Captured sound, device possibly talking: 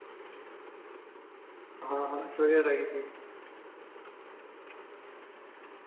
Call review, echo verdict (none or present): none